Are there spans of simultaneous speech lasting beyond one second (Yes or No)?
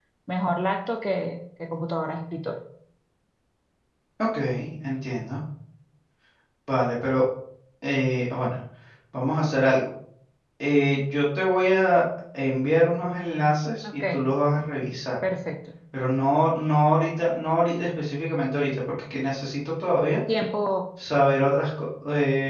No